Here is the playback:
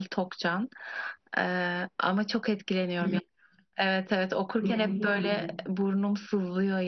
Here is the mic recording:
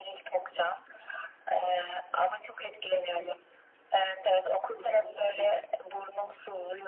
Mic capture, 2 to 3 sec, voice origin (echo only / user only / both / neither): echo only